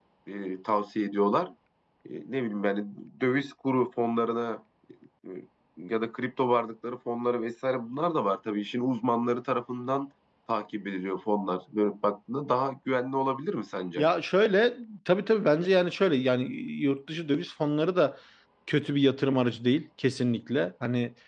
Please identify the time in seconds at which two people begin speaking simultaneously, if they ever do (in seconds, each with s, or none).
none